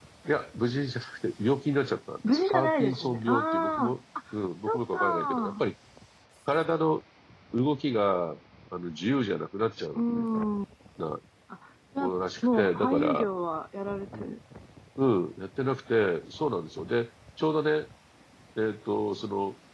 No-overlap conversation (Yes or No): No